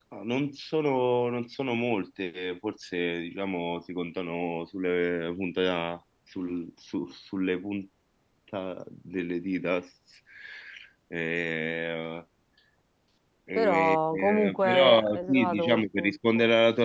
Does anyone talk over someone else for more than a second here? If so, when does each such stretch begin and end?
13.6-16.1

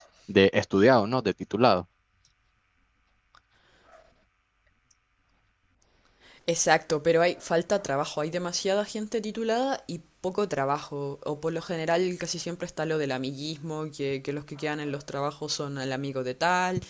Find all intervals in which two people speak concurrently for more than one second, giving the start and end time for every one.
none

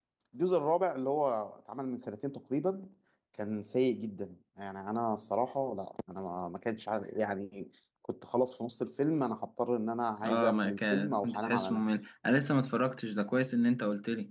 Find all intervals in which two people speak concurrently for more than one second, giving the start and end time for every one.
10.2-12.0

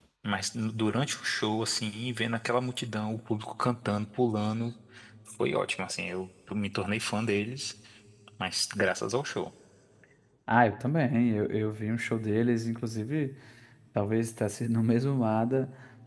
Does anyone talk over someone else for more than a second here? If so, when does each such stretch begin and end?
none

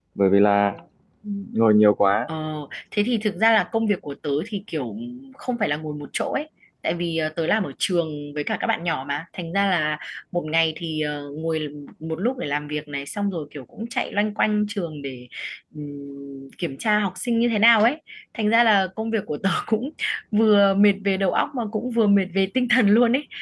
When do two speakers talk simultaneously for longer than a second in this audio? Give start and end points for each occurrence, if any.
none

